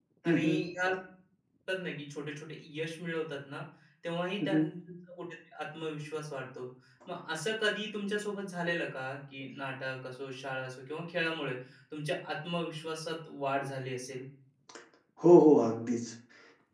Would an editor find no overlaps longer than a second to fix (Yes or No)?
Yes